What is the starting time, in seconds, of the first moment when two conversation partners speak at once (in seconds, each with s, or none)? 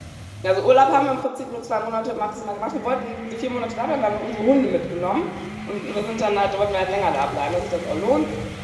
none